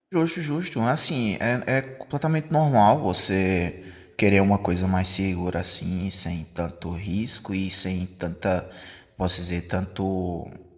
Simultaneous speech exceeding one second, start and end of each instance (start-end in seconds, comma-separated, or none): none